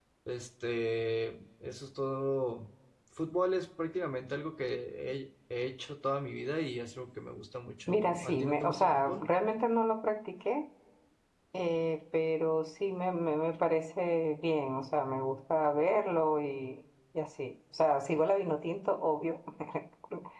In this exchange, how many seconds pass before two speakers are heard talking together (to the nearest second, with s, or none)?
8 s